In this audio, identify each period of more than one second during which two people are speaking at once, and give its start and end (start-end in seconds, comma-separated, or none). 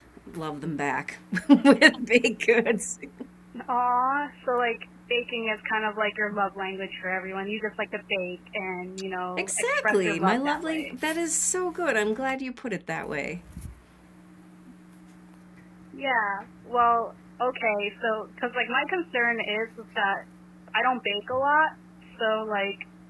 9.4-10.9